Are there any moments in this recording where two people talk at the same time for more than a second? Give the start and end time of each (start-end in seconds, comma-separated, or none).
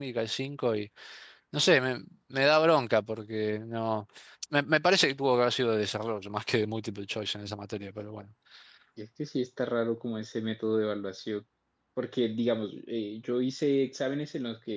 none